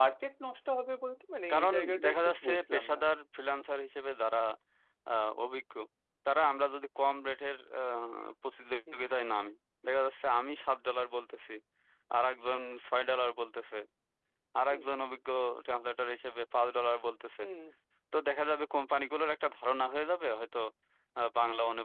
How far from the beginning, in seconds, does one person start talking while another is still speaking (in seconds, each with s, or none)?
1.5 s